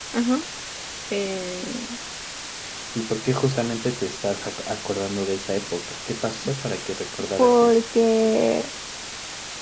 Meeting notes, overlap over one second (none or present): none